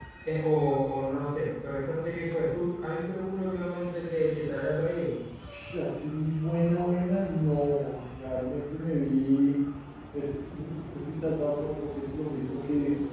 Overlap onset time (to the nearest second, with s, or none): none